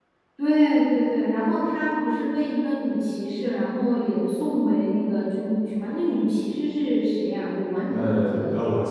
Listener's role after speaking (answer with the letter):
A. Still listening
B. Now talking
B